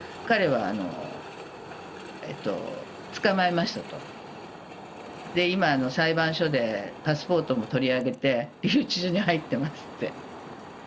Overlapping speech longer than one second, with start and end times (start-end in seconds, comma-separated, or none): none